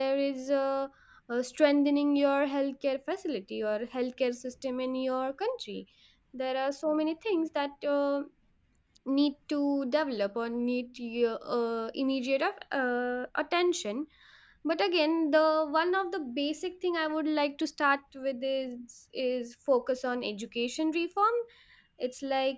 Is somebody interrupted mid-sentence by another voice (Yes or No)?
No